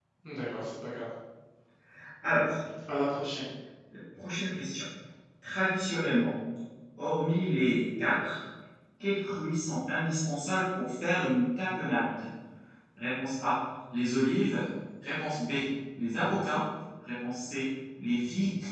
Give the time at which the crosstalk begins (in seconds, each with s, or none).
none